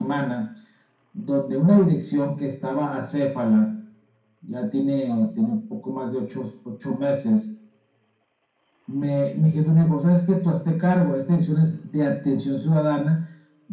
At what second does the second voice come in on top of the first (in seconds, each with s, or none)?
none